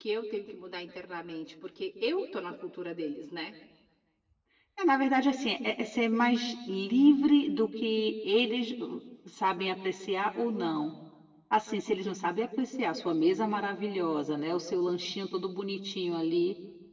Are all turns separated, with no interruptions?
Yes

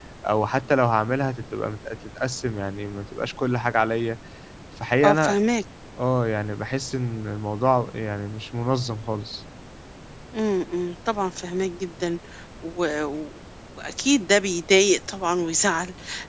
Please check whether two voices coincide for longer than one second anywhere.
No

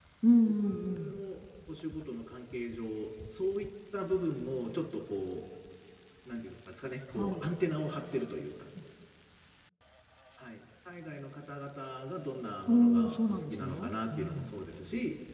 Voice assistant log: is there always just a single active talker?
No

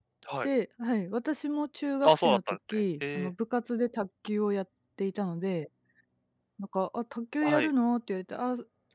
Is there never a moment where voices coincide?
No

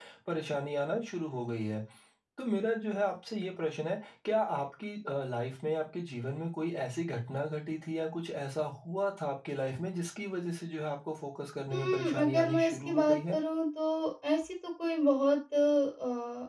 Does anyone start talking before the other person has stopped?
Yes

